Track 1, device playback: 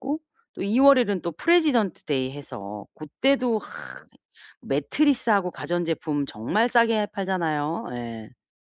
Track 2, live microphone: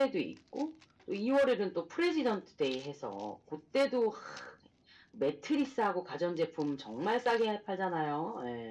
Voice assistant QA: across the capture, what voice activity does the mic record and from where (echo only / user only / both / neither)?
echo only